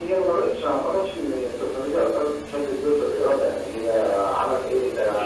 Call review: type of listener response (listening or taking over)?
taking over